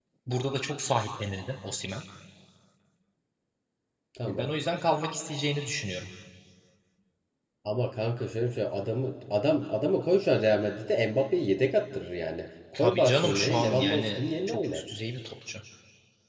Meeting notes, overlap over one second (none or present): present